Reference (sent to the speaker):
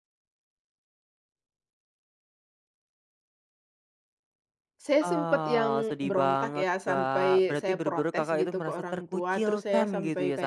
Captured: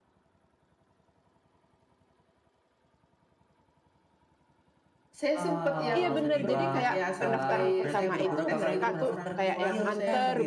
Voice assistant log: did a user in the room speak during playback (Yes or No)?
Yes